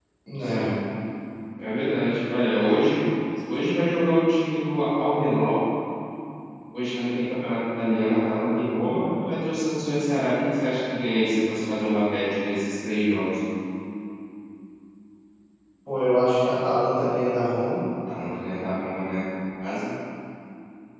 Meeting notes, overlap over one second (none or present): none